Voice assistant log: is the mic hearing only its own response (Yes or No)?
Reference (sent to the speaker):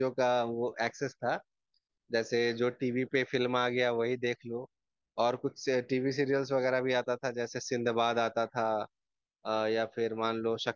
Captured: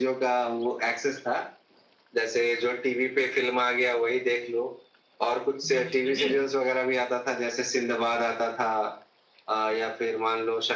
No